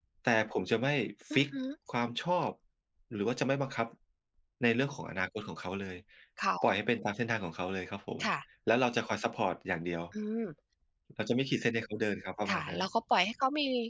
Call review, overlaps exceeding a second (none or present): none